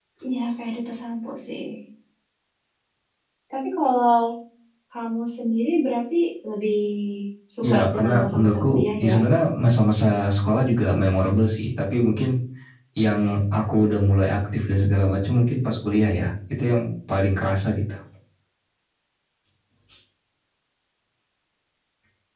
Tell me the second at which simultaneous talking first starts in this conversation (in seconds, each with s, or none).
7.6 s